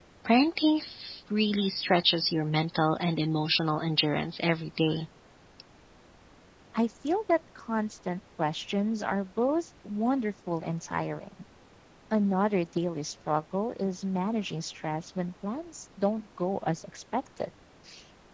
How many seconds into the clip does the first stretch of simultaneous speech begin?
none

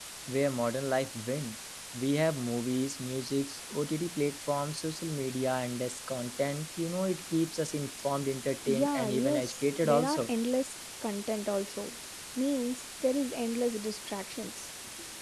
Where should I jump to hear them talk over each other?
8.7 s

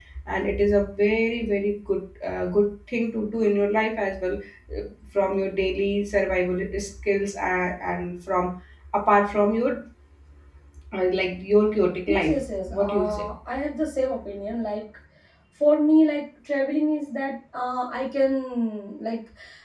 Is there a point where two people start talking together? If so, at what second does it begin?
12.1 s

